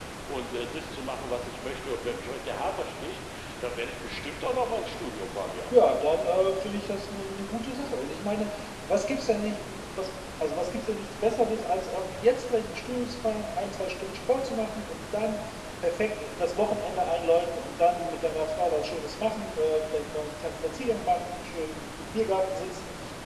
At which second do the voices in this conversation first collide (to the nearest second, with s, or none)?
none